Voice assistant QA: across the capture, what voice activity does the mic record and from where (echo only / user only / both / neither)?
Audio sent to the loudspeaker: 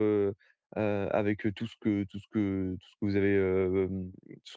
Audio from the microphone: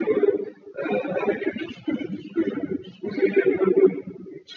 echo only